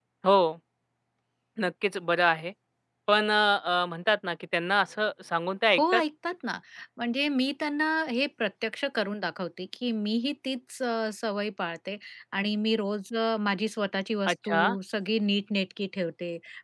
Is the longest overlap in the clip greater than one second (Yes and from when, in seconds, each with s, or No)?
No